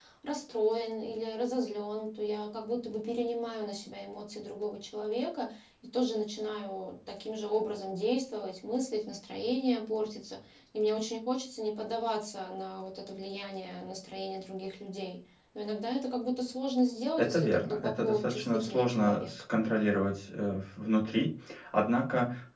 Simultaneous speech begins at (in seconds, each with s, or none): 17.2 s